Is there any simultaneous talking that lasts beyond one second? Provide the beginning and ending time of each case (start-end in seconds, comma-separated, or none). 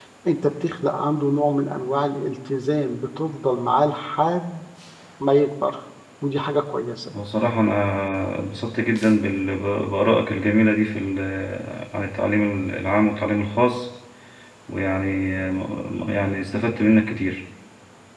none